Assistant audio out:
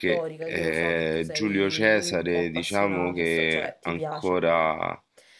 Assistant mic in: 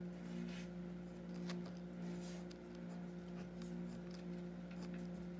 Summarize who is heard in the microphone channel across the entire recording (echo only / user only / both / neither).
neither